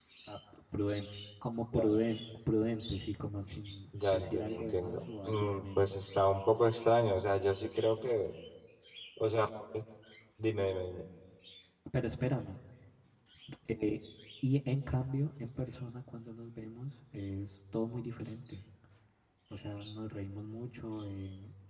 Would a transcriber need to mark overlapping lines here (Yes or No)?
Yes